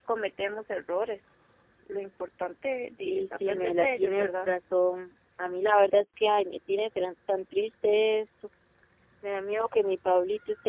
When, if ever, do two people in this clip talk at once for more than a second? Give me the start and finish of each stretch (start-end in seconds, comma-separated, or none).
3.0-4.5